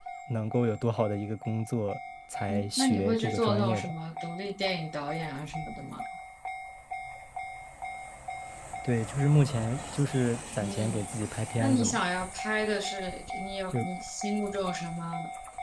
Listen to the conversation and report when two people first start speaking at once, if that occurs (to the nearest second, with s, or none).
2 s